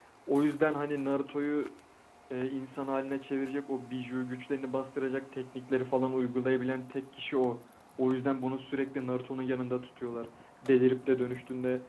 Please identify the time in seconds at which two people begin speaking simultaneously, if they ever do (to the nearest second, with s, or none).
none